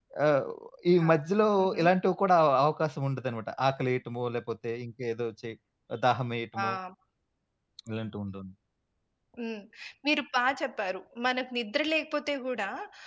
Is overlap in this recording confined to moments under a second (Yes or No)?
Yes